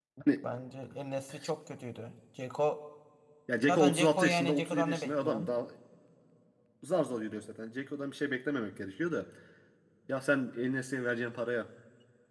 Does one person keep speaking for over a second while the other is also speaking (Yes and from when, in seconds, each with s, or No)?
Yes, from 3.7 s